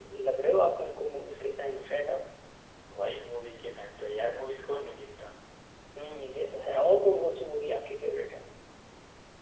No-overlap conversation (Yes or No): Yes